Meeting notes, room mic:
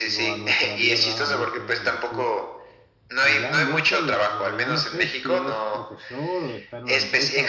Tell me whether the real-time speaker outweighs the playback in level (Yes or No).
No